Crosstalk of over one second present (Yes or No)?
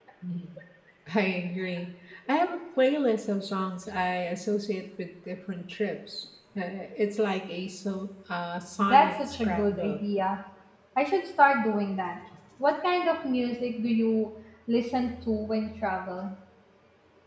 Yes